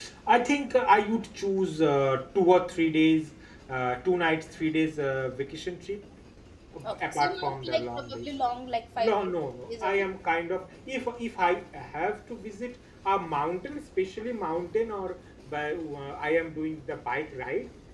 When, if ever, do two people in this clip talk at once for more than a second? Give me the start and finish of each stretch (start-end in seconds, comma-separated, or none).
6.8-8.3